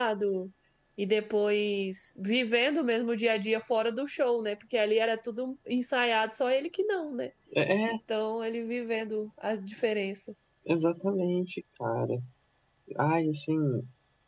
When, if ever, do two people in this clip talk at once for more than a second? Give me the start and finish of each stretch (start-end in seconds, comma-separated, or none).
none